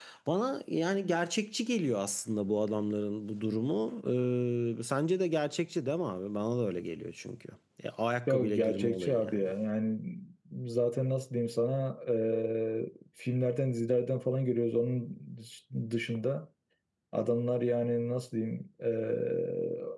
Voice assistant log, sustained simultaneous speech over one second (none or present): present